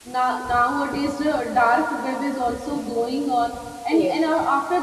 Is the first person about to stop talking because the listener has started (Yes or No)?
No